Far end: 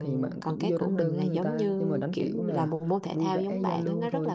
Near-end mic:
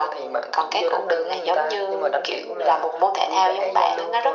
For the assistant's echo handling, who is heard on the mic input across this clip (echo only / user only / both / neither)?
echo only